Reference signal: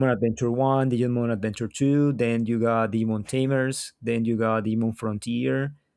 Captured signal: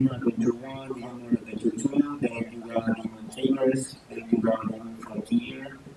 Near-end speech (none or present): none